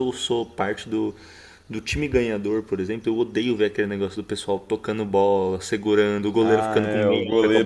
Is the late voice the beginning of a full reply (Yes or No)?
Yes